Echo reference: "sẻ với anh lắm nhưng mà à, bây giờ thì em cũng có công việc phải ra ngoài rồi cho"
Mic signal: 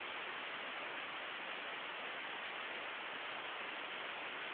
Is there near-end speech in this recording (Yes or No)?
No